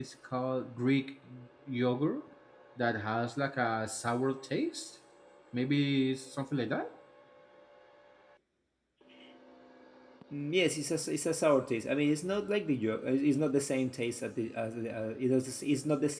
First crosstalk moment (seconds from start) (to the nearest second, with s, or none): none